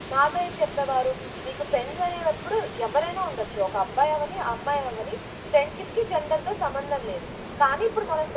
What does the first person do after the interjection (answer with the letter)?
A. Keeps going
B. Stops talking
A